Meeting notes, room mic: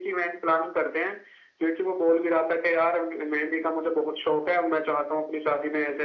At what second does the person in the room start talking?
none

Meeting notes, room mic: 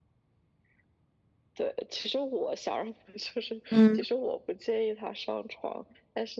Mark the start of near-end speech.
3.7 s

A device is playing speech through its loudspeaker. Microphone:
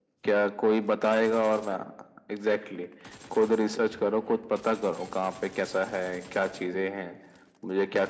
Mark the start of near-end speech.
none

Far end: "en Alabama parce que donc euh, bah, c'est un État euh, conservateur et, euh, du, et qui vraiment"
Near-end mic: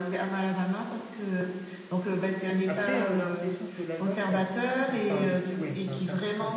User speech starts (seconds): 2.6 s

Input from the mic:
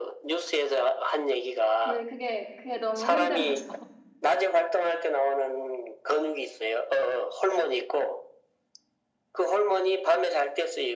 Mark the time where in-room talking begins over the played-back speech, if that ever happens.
1.8 s

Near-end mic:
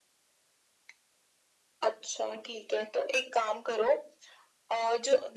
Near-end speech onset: none

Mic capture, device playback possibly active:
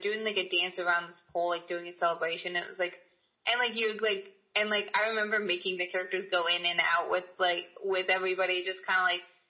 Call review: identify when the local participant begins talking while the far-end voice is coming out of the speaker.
none

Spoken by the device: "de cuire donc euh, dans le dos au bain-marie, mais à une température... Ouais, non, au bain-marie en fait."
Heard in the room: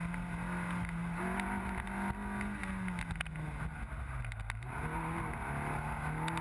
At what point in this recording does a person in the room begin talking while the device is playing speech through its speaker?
none

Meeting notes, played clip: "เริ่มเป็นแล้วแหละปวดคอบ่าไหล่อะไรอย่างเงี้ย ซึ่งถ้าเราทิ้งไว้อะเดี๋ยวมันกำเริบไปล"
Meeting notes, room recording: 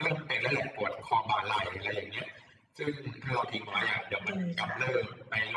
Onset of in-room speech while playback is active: 3.8 s

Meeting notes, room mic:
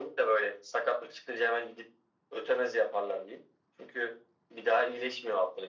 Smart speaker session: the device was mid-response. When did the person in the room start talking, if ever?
none

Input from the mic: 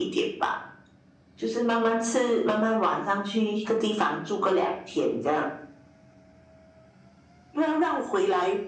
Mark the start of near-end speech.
none

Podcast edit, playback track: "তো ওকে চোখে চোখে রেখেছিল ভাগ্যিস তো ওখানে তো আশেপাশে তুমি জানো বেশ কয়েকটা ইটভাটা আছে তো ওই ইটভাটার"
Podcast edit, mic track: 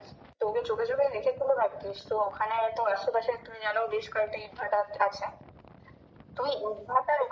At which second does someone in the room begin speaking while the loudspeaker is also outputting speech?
none

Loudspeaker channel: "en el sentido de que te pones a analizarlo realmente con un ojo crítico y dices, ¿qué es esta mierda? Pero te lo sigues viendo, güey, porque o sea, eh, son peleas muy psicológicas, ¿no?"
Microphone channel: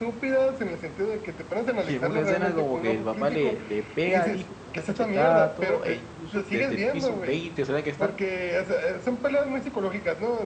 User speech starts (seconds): 1.9 s

